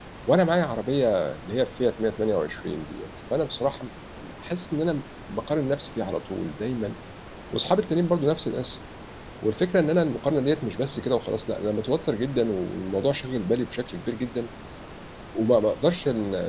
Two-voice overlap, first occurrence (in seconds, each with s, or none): none